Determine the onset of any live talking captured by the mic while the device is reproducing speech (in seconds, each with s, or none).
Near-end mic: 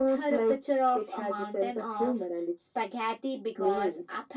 none